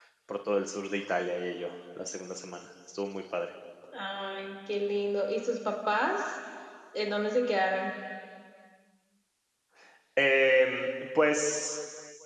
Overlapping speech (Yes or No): No